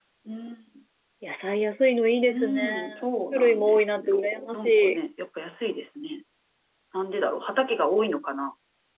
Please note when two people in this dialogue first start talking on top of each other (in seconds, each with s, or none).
2.3 s